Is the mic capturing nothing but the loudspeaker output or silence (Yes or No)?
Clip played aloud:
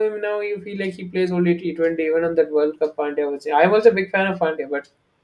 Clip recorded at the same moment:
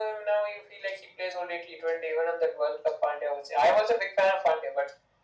Yes